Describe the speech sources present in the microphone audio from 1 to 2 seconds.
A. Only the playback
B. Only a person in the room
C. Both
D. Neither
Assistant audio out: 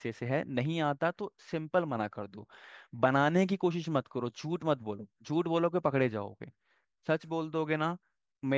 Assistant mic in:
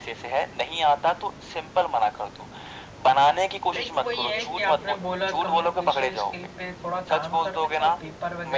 A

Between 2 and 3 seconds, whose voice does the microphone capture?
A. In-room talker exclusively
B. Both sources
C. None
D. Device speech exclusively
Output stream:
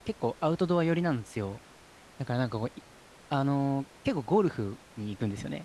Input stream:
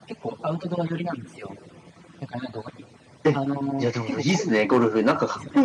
D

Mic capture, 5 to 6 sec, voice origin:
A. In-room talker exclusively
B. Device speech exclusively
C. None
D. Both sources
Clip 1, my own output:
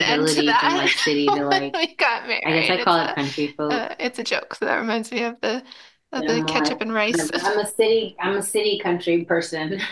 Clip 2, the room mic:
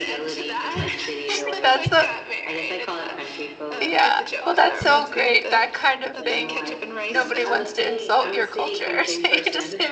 D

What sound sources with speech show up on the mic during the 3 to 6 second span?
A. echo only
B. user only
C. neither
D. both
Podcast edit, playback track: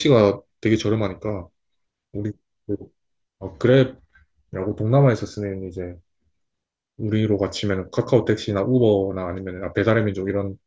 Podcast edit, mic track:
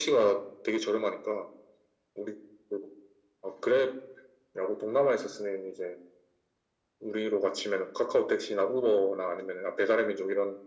A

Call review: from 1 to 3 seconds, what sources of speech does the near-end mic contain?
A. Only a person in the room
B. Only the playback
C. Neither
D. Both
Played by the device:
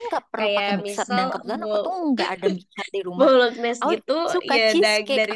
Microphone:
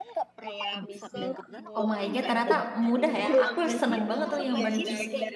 D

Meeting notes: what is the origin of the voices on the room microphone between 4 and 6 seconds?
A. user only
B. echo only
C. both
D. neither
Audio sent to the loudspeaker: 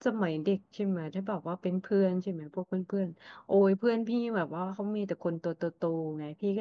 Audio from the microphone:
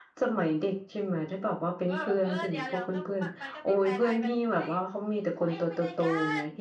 C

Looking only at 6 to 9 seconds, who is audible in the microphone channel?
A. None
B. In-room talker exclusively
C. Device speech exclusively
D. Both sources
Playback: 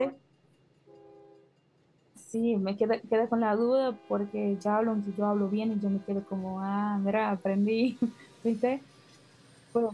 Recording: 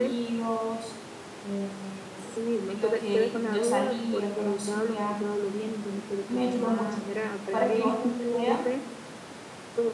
D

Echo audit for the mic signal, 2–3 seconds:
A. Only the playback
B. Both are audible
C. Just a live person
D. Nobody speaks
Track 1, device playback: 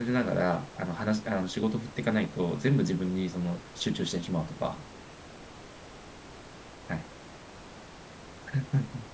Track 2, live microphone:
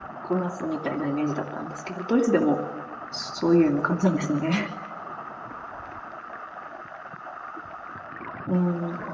C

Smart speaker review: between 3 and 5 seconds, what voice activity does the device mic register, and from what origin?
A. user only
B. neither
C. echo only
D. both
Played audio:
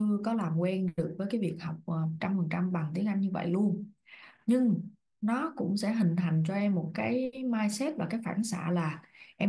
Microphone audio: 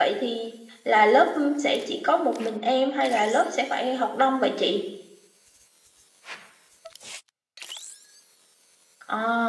A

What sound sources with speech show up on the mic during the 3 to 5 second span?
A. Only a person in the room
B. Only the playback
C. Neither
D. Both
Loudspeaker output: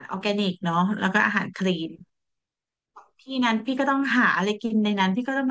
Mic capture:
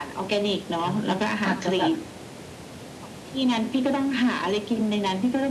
B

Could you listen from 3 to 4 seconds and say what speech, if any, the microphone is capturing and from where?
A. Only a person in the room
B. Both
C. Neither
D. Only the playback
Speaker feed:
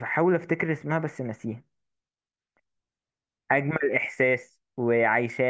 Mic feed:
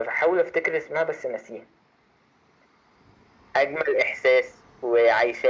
D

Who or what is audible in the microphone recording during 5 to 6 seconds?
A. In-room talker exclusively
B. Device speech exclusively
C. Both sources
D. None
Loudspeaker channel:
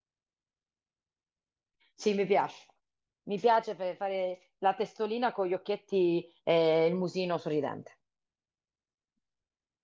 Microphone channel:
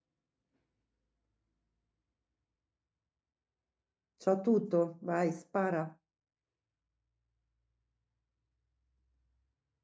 A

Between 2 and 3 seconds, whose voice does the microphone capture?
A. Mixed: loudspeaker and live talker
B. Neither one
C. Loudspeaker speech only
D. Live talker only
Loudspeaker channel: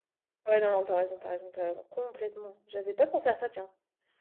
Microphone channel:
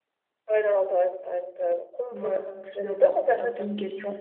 A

